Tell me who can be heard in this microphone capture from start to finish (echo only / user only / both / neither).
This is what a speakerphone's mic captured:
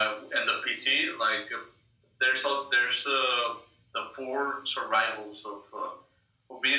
echo only